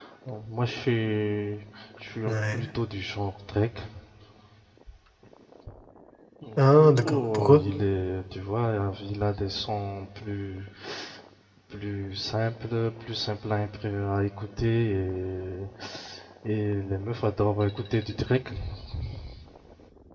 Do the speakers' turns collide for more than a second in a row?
No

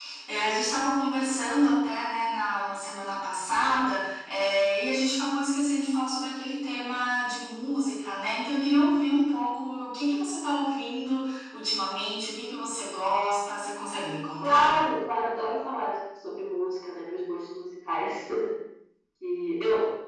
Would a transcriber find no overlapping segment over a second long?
Yes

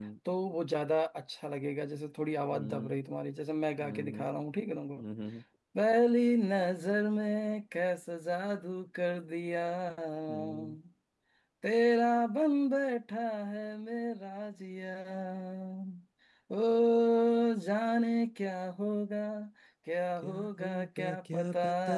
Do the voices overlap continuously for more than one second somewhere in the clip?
Yes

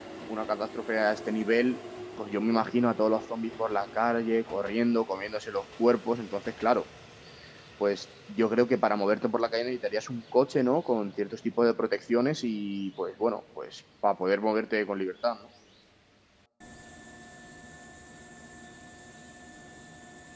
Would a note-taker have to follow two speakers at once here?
No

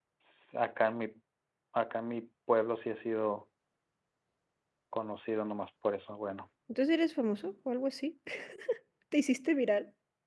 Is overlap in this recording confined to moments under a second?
Yes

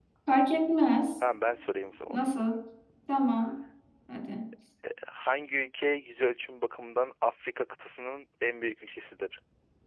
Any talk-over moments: No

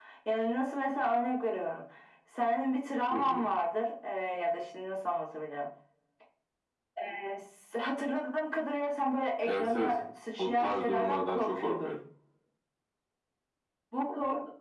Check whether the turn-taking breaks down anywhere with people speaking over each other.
Yes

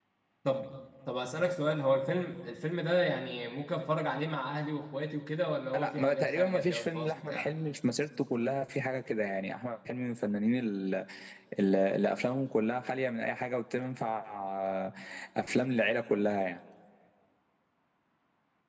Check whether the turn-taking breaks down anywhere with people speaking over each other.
Yes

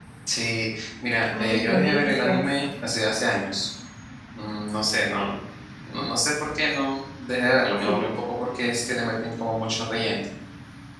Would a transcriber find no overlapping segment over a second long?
No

